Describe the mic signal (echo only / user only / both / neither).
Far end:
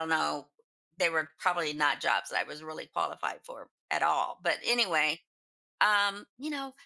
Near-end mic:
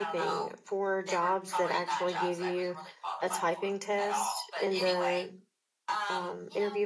both